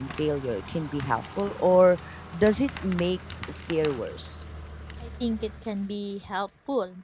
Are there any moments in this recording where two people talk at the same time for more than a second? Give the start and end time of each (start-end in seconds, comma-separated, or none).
none